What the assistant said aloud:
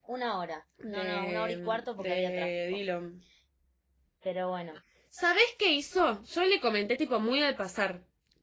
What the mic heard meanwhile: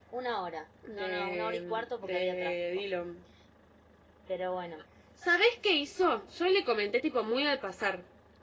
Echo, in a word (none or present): present